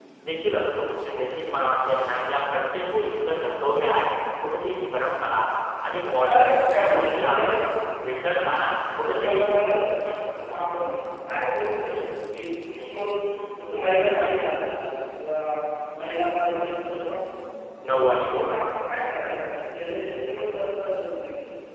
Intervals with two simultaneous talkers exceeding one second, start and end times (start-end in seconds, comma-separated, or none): 6.2-7.5